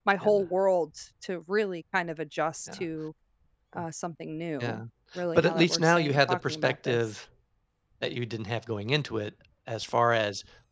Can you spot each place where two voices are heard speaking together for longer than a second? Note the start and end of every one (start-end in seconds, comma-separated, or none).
5.3-7.2